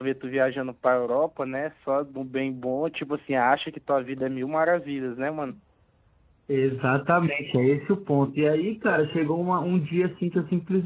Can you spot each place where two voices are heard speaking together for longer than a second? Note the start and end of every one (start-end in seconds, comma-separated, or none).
none